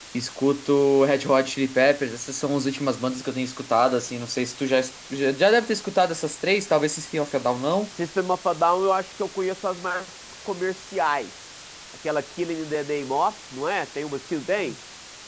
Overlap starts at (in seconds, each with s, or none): none